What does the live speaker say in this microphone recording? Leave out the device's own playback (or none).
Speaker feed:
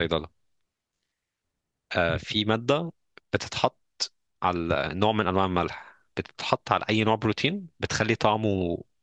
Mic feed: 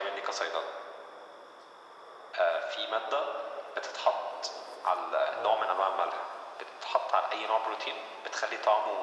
اه